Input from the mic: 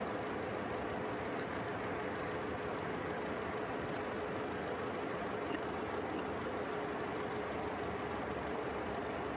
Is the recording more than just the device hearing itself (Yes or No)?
No